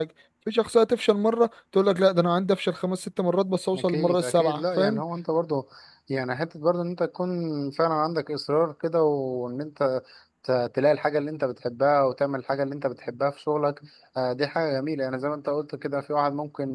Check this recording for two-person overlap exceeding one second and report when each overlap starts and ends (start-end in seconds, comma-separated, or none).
3.8-5.0